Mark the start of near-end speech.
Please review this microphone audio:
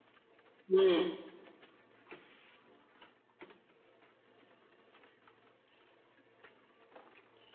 0.7 s

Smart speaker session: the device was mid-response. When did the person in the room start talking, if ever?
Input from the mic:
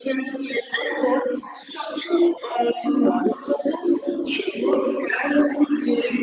none

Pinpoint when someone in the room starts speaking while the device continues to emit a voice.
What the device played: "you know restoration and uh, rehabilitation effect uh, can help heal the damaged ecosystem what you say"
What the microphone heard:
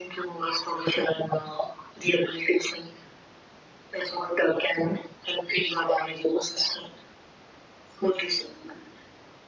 none

